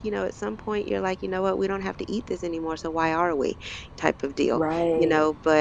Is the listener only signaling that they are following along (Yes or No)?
Yes